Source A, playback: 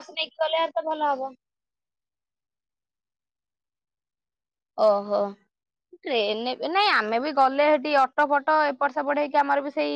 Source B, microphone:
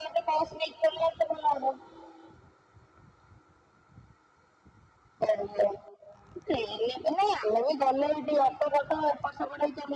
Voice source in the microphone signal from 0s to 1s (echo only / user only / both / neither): echo only